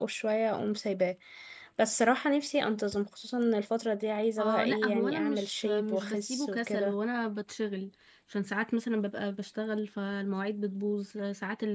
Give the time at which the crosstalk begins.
4.4 s

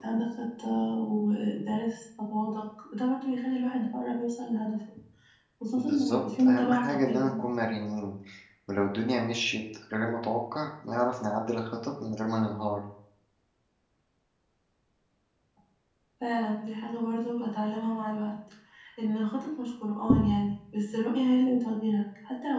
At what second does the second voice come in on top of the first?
5.8 s

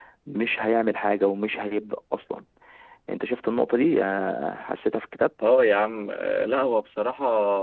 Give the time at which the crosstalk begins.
none

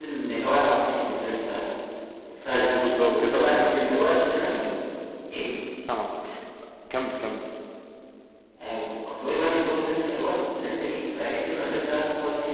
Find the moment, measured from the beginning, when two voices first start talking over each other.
2.5 s

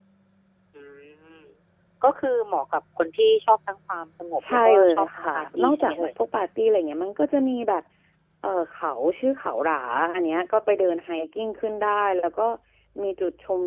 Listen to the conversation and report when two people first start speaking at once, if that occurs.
4.6 s

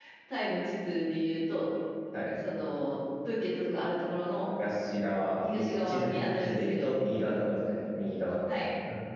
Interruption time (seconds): 5.5 s

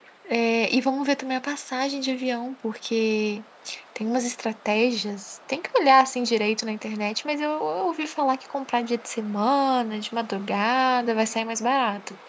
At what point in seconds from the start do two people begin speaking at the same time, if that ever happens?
none

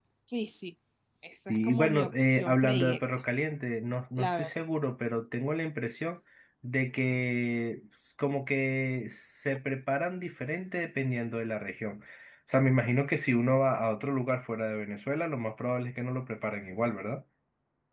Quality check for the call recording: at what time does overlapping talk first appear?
1.5 s

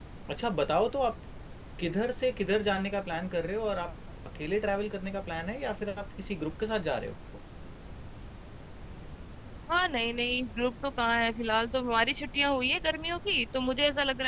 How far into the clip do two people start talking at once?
none

